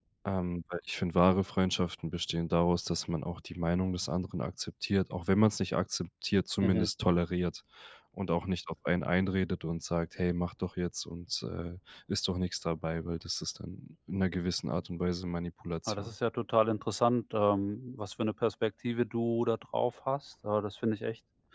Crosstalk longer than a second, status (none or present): none